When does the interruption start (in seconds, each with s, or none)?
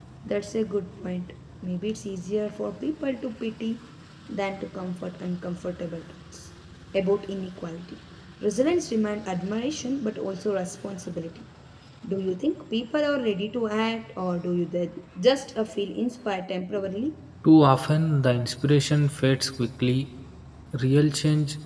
none